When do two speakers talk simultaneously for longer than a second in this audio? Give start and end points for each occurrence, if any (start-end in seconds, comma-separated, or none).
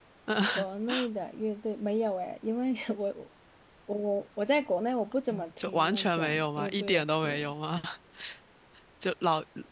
5.6-7.5